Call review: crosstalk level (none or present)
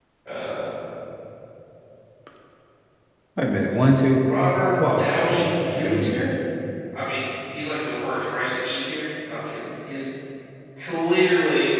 present